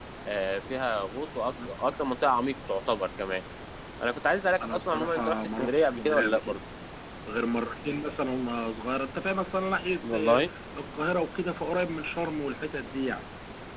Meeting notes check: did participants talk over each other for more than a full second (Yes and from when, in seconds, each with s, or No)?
Yes, from 4.6 s